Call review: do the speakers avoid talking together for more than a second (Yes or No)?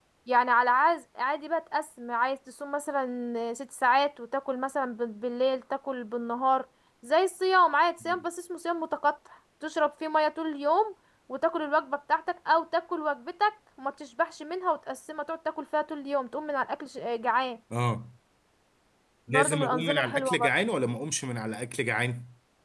No